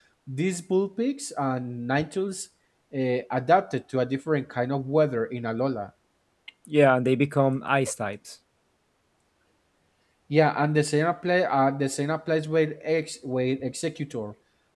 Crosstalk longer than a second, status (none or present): none